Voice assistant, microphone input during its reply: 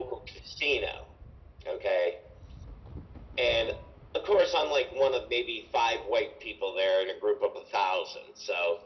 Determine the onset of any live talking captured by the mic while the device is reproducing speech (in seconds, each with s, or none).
none